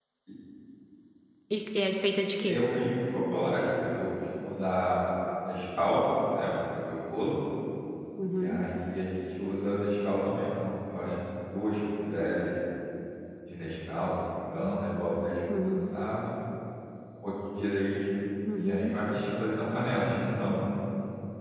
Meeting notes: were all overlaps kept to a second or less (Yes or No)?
Yes